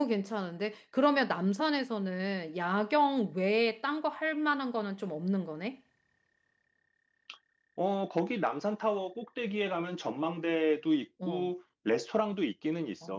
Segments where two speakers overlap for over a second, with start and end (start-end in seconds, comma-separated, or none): none